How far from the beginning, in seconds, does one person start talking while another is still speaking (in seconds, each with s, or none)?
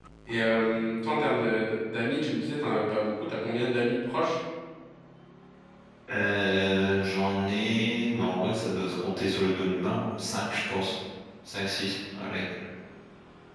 none